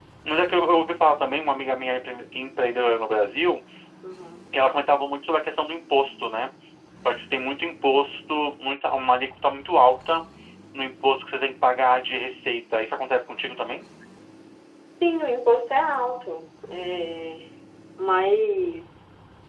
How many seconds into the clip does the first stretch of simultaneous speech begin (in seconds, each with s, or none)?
none